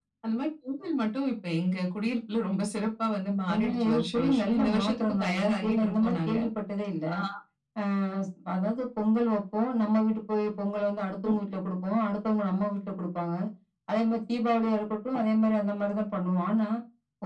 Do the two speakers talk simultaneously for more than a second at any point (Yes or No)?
Yes